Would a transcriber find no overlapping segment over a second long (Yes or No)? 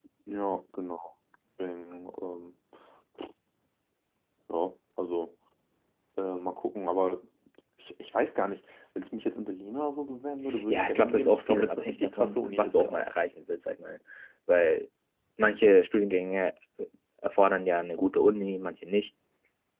No